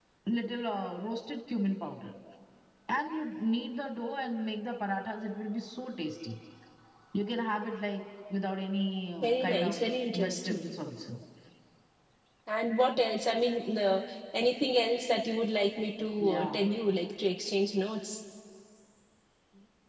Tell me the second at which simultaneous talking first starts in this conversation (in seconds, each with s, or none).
9.2 s